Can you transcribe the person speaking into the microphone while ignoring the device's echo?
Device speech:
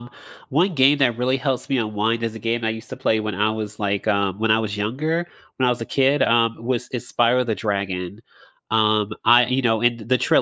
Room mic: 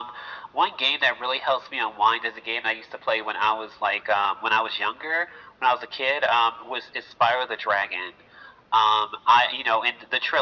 none

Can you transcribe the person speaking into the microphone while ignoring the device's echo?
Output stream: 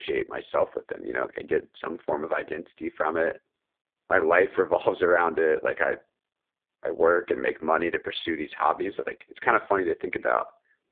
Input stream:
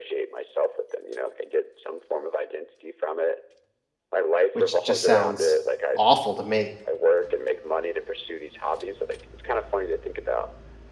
which just sounds awful to me.

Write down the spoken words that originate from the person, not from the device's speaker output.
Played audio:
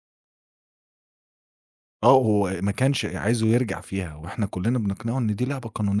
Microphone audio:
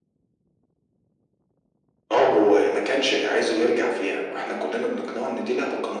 none

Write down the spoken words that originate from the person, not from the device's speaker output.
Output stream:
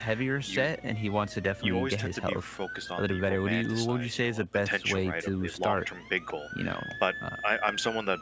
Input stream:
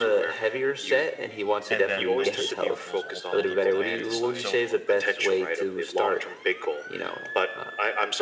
and then those small goals all build up to that bigger one. So,

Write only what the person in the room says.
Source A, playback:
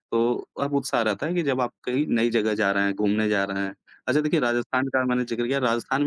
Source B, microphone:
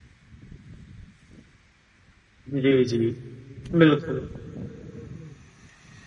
जी, जी। बिल्कुल,

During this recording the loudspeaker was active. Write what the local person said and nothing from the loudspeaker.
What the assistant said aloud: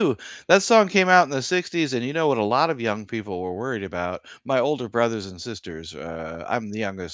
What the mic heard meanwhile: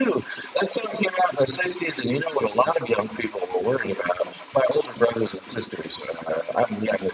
none

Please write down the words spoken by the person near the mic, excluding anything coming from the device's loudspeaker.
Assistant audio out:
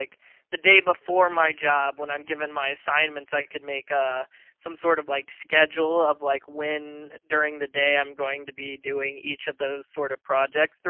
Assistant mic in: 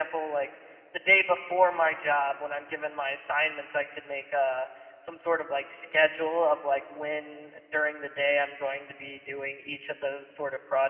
none

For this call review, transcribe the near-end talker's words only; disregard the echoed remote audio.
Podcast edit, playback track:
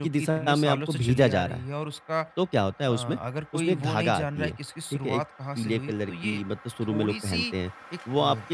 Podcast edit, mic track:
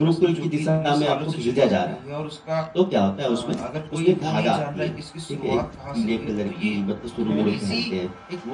हुँ,

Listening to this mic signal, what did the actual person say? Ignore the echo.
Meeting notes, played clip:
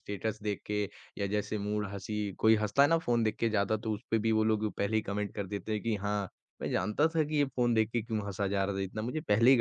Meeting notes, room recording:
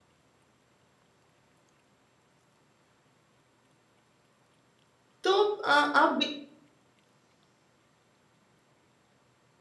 तो अ, आप भी

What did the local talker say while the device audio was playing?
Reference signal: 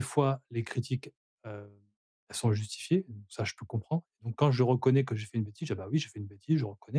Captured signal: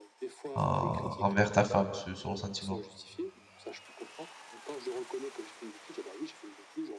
en envers ta femme ce ce ressentiment?

